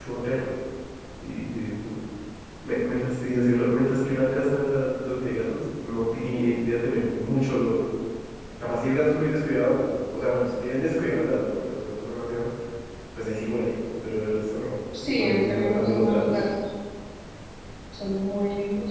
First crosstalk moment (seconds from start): 15.2 s

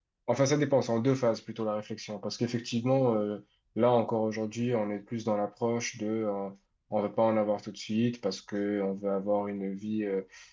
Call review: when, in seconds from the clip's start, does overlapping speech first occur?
none

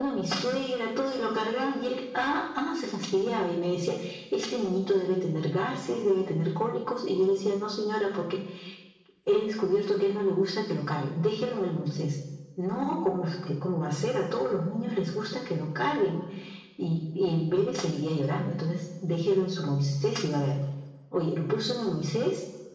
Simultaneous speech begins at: none

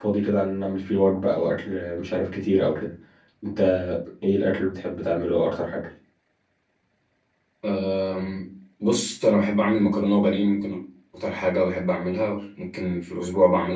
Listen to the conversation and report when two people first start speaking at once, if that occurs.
none

